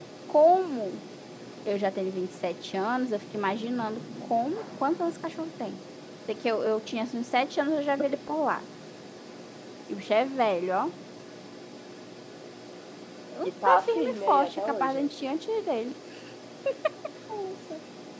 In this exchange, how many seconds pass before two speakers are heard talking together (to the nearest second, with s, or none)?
14 s